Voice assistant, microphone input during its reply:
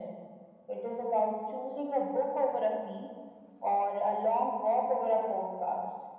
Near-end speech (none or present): none